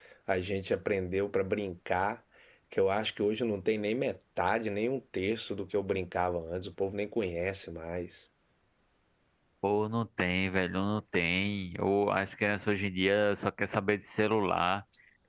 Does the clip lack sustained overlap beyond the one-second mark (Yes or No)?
Yes